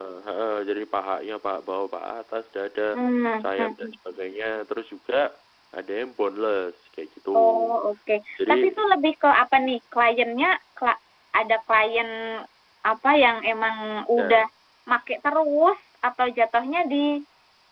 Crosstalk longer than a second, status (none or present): none